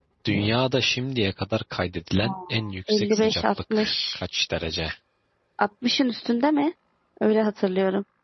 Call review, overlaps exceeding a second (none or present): present